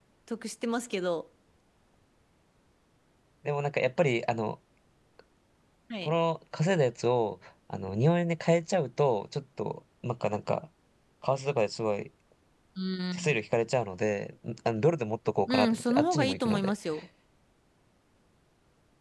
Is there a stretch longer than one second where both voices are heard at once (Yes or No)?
Yes